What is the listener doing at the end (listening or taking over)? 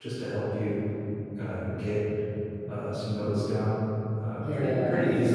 taking over